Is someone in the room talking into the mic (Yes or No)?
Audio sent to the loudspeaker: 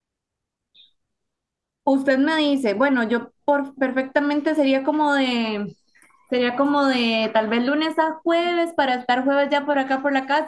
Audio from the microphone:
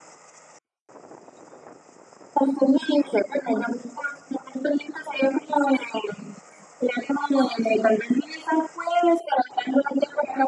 No